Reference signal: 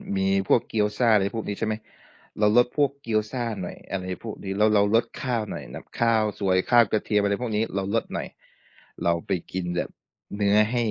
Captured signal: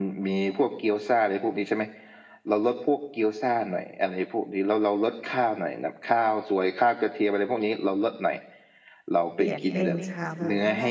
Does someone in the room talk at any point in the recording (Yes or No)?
Yes